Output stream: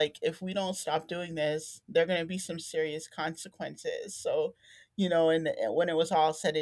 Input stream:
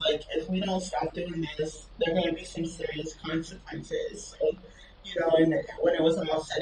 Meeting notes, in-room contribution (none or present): none